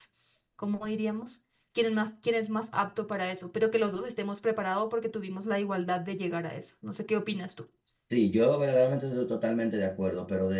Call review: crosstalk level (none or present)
none